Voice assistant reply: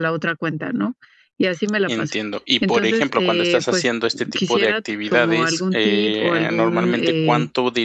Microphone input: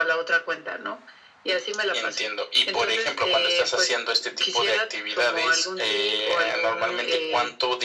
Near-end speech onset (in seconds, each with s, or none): none